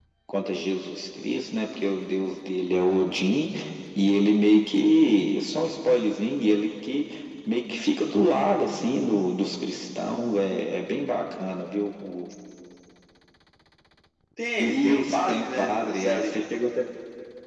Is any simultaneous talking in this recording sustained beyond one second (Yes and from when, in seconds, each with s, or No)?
Yes, from 14.6 s